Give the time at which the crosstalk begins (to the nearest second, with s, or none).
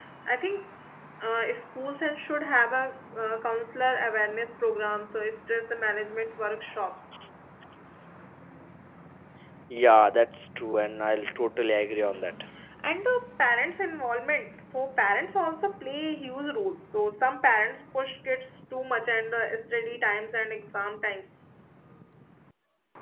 none